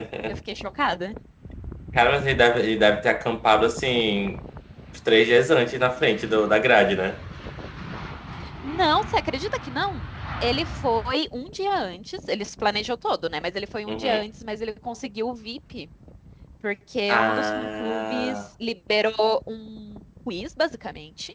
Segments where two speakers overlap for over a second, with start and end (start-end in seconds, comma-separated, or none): 17.1-18.4